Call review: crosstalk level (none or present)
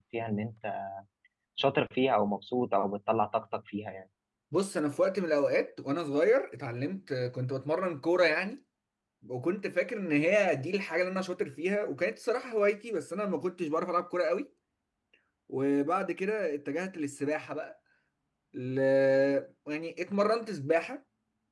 none